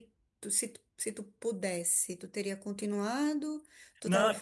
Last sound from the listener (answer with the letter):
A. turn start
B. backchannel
B